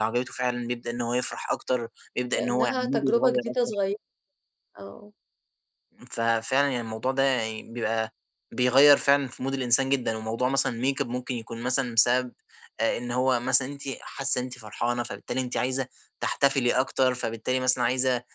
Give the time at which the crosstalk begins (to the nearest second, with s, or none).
2 s